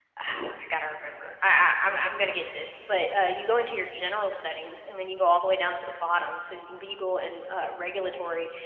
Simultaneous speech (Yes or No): No